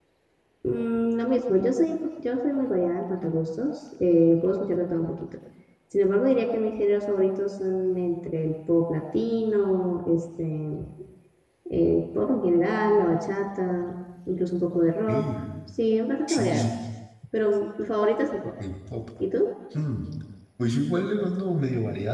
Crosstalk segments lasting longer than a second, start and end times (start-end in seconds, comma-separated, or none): none